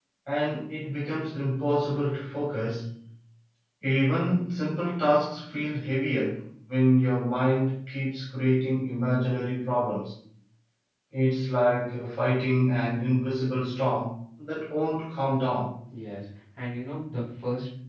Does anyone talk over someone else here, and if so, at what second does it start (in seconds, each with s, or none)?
none